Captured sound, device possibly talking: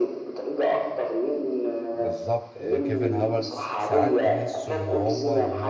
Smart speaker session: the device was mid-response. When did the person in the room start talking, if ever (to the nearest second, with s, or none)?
2 s